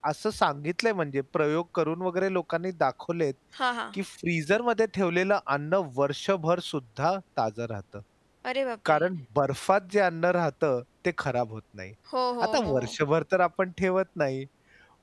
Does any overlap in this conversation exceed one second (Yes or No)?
No